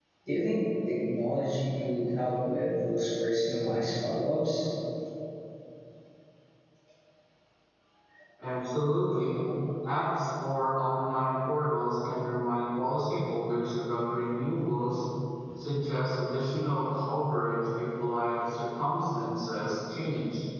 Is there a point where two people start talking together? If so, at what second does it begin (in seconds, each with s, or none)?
none